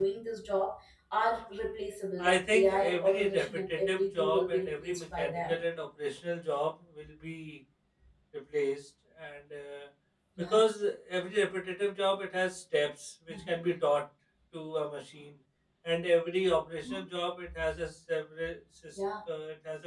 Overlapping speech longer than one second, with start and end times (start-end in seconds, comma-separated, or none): 2.3-5.6